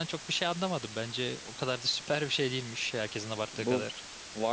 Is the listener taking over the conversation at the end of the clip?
Yes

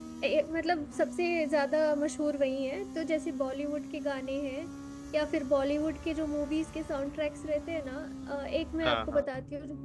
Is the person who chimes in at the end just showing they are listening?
Yes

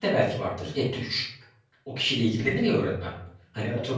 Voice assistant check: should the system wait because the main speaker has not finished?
Yes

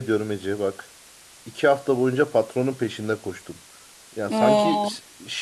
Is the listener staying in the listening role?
Yes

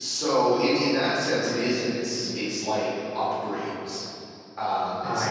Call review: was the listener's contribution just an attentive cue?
Yes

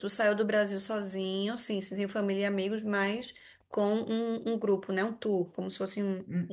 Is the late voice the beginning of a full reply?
Yes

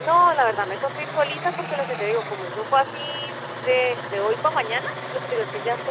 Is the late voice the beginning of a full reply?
No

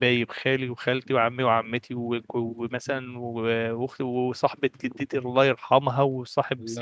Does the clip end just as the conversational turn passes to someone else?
No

